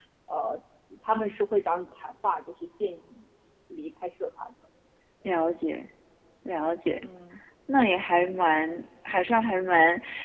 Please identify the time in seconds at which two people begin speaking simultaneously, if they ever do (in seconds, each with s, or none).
none